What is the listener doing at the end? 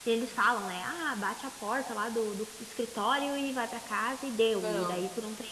listening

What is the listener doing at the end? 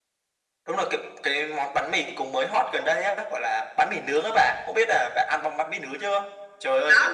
listening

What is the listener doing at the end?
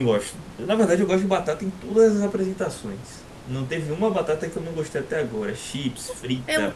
taking over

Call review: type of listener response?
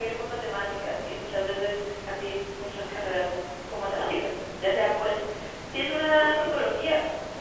listening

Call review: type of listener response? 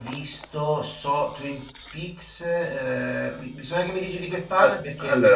taking over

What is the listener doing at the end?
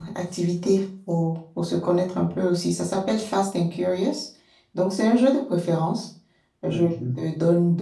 listening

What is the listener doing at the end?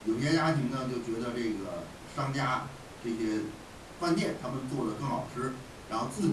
listening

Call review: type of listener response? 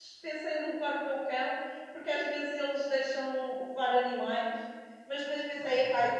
listening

